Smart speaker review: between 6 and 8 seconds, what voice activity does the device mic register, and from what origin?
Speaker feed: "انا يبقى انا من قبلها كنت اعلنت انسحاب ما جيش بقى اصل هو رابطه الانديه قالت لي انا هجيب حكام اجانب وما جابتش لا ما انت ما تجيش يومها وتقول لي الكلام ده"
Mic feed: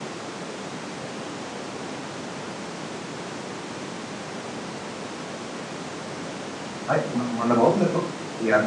user only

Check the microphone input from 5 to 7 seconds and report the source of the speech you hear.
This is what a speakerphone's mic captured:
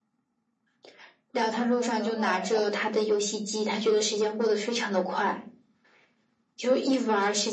echo only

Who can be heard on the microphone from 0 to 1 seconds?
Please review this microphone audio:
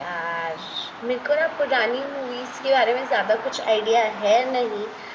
user only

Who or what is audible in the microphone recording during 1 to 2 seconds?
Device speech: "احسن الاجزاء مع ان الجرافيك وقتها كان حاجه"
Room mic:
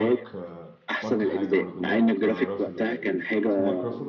both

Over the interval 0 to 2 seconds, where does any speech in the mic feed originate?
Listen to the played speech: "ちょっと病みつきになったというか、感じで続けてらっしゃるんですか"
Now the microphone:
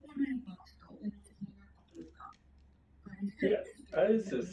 echo only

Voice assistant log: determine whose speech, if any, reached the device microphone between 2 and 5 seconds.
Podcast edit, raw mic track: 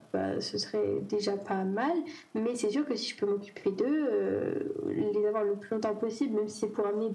echo only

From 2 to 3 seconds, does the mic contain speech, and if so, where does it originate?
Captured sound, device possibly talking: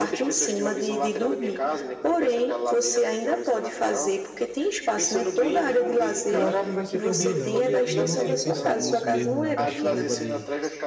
echo only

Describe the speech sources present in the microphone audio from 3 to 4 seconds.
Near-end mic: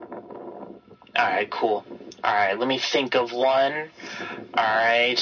echo only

